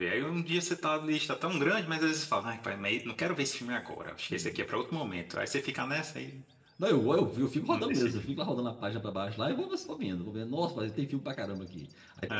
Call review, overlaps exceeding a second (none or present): none